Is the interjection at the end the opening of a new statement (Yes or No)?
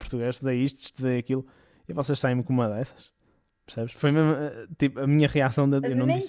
Yes